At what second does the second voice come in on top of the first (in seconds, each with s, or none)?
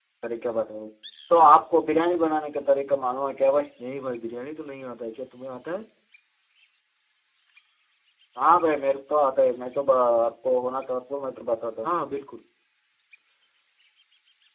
none